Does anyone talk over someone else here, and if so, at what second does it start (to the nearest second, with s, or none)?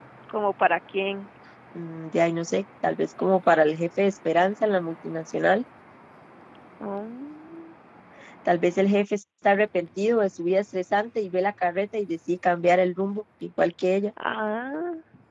none